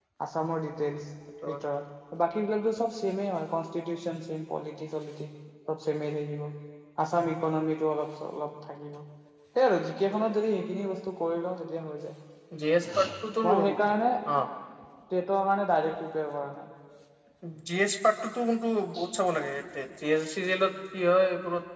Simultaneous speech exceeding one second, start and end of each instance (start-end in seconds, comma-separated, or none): none